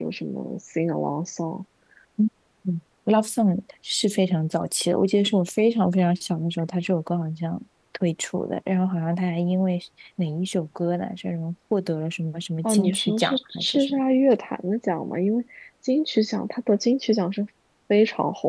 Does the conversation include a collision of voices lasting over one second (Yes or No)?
Yes